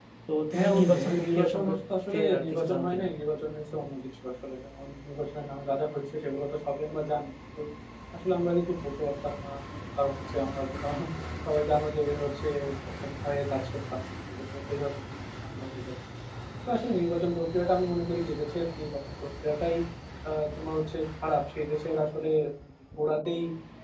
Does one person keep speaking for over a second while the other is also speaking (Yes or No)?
Yes